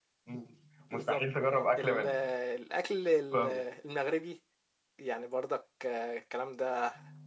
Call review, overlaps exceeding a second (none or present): none